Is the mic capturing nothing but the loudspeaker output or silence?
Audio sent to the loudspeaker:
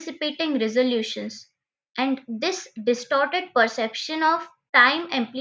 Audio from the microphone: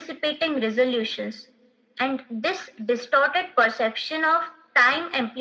Yes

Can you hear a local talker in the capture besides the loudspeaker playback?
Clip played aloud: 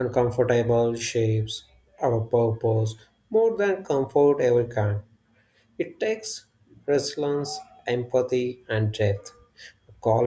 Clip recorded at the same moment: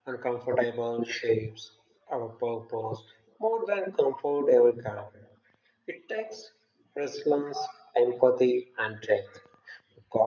No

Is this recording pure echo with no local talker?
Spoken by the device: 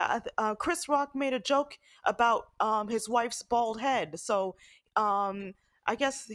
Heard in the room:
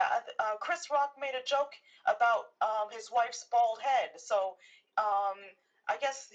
Yes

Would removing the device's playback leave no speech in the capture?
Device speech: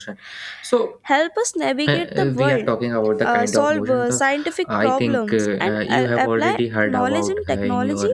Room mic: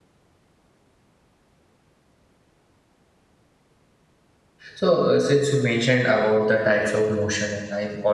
No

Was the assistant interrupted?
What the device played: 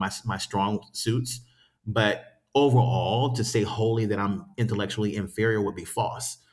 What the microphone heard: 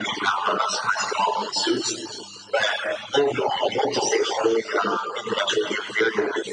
No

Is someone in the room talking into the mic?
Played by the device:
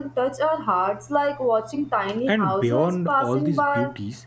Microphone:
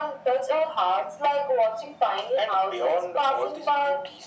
No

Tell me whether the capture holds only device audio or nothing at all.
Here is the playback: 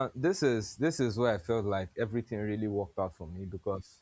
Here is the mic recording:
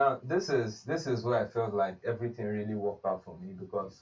Yes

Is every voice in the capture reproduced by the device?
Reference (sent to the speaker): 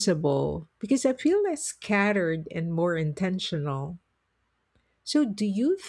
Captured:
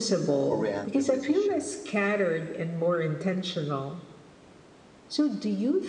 No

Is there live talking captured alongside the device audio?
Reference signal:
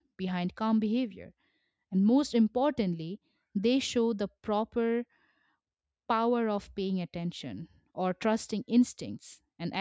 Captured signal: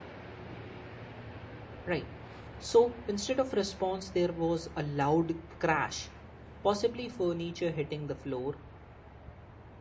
Yes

